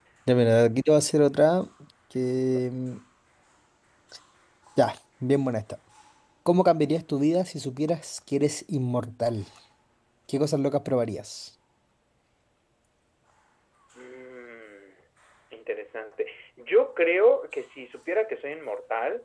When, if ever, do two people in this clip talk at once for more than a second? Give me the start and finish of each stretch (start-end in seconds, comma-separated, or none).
none